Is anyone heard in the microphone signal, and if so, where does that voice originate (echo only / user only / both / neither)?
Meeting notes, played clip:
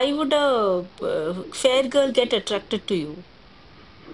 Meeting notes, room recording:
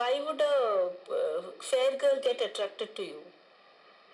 echo only